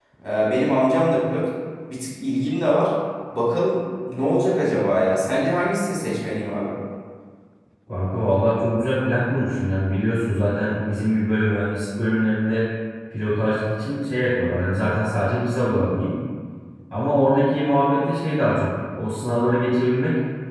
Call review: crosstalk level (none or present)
none